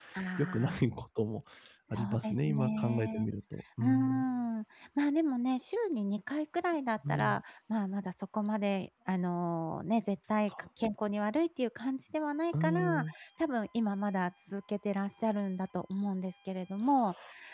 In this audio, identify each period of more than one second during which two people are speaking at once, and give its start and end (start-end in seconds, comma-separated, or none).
1.9-3.3